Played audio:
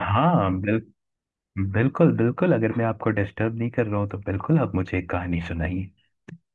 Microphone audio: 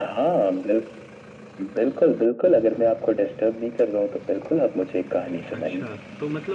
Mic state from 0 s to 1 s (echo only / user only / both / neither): echo only